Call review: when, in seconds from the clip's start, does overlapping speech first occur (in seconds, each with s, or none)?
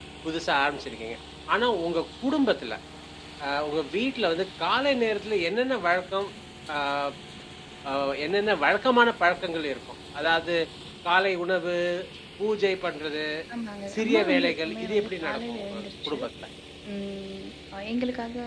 14.0 s